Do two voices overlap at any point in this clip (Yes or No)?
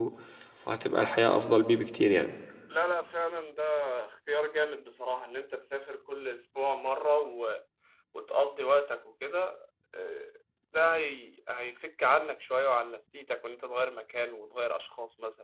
No